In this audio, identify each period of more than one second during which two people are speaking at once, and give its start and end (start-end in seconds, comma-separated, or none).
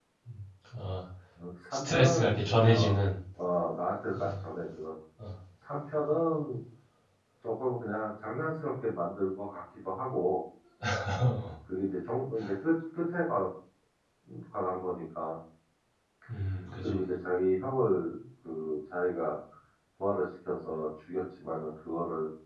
1.7-2.9